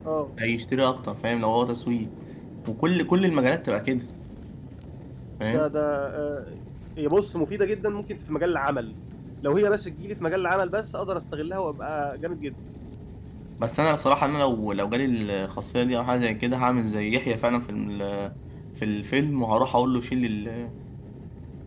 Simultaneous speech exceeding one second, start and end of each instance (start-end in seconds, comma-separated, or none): none